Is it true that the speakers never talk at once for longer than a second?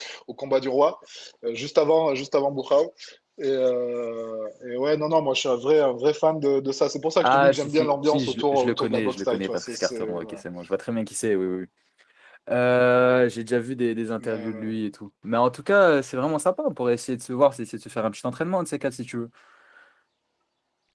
No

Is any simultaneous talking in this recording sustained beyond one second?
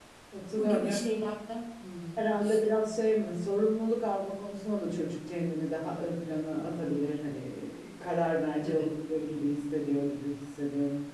No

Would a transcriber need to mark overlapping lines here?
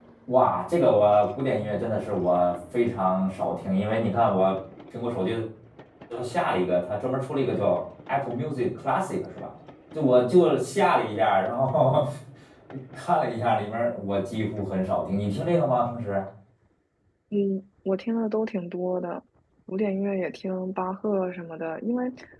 No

